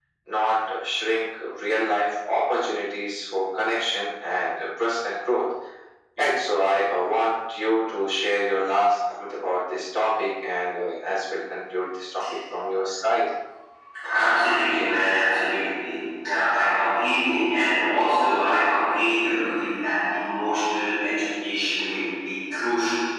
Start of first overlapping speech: none

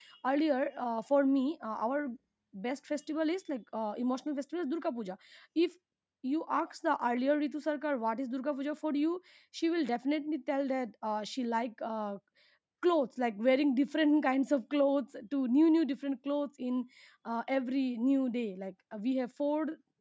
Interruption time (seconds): none

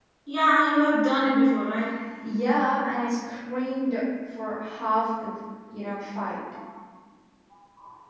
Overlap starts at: none

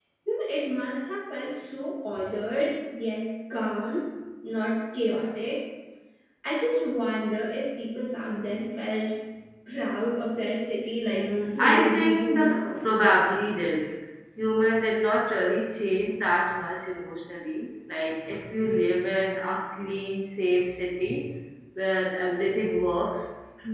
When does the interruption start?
11.1 s

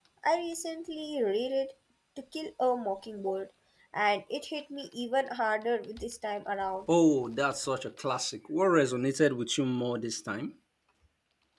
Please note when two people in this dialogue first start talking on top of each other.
none

